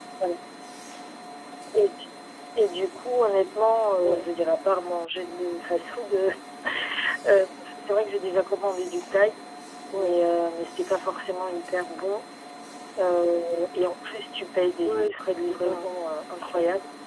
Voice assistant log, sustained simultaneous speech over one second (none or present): present